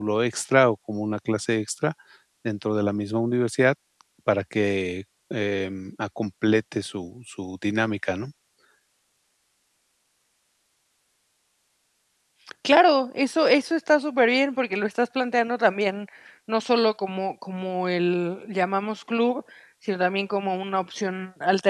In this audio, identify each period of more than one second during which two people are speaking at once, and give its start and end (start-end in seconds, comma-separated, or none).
none